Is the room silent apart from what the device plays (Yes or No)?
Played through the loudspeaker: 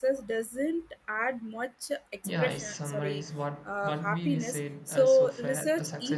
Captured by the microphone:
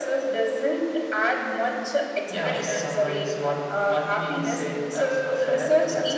Yes